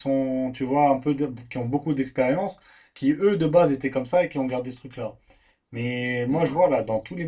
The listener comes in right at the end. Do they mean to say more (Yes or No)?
No